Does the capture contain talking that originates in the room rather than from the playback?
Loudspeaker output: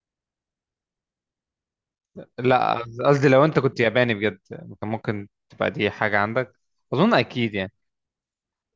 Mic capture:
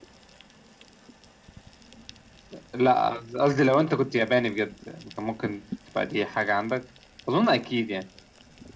No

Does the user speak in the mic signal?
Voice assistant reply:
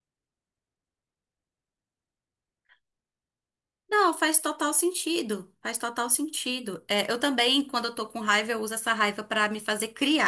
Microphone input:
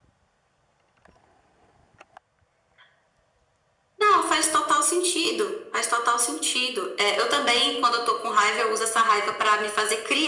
No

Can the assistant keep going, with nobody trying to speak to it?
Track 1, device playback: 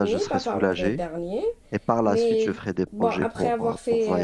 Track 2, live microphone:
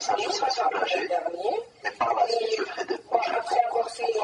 Yes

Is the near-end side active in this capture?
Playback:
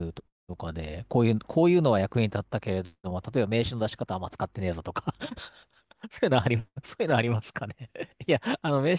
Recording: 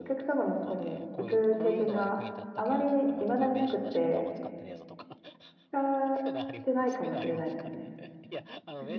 Yes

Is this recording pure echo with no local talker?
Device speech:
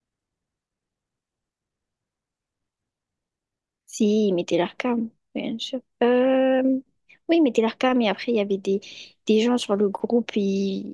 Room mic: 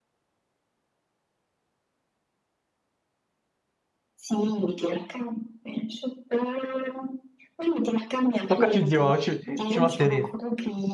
No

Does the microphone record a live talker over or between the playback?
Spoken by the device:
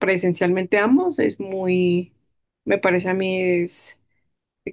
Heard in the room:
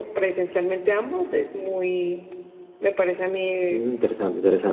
Yes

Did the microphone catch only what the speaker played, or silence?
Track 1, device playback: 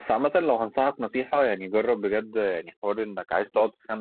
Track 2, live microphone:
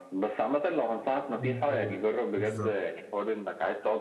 No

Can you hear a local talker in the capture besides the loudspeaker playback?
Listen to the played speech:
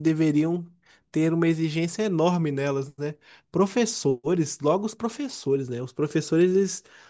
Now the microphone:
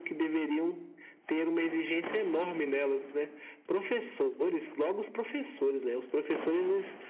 No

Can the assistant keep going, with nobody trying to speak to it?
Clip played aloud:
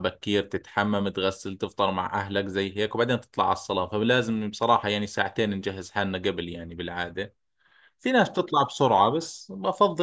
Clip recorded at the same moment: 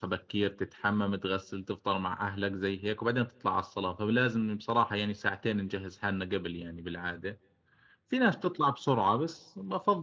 Yes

